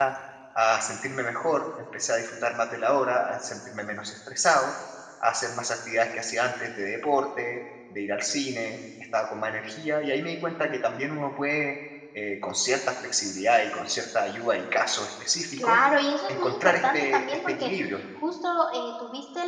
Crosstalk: present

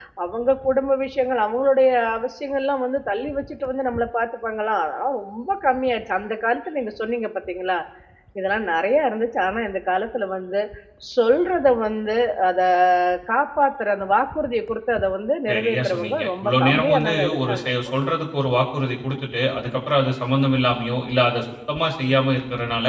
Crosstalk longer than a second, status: present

